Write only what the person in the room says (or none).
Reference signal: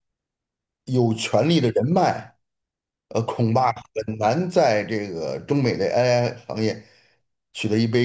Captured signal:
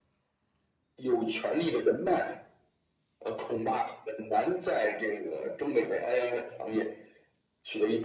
none